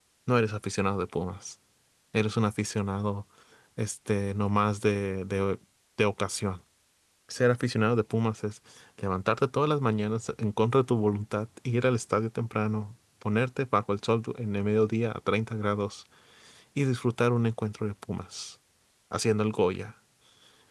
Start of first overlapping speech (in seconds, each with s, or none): none